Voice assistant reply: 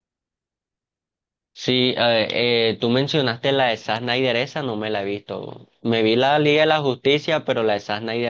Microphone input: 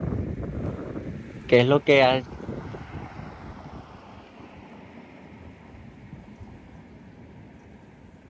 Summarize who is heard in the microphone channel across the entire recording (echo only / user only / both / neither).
user only